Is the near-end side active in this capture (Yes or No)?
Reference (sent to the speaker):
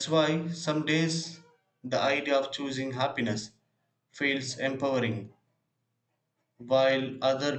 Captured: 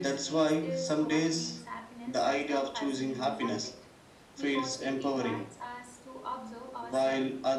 Yes